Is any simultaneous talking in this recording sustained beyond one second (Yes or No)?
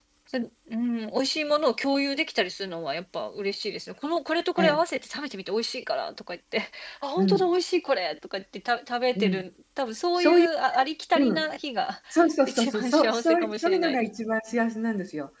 Yes